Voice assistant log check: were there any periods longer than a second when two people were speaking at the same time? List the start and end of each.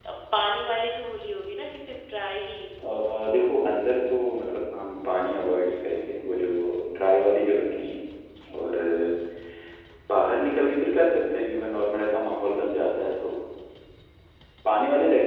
none

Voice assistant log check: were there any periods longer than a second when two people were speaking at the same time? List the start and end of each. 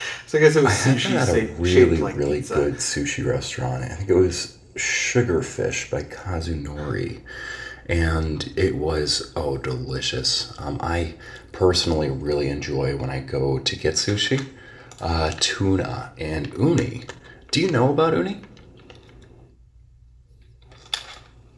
0.7-2.6

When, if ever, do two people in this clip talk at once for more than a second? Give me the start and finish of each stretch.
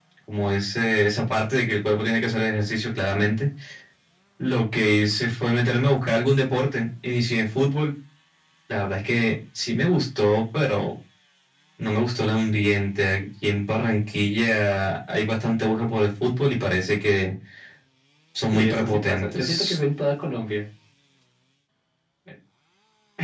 18.5-19.8

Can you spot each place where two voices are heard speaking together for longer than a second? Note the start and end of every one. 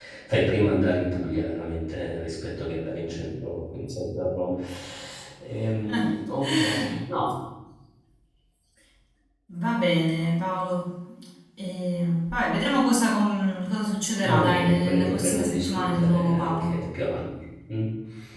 14.3-16.8

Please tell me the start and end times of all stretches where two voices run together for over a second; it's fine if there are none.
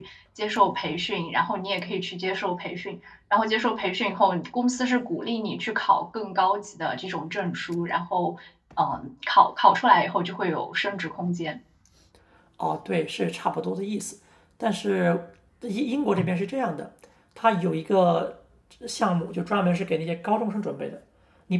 none

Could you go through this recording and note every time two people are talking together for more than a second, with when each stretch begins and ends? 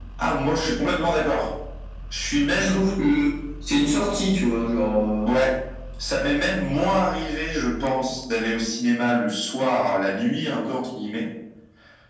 none

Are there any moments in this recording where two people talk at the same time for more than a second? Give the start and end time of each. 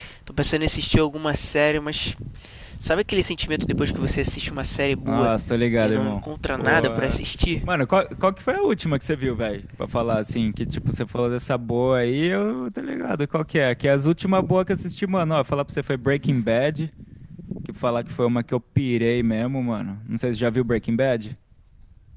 5.8-7.2

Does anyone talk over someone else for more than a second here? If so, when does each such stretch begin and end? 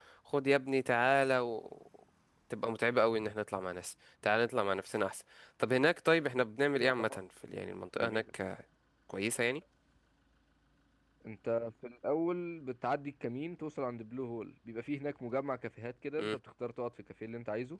none

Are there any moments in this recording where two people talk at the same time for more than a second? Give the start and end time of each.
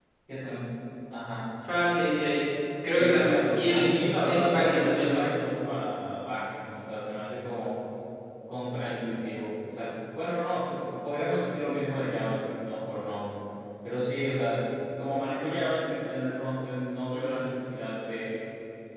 2.9-5.2

